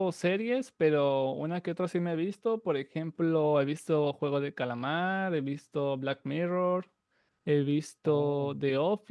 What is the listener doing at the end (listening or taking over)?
listening